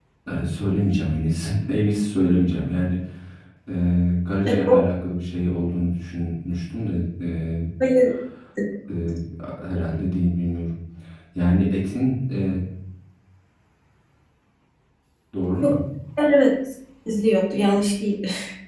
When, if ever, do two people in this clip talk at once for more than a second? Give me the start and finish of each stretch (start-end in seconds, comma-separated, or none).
none